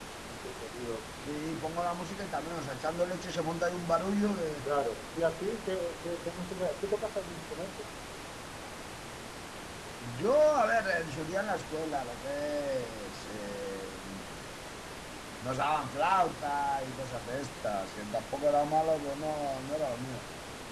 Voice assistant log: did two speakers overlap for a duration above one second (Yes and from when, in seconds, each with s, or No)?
No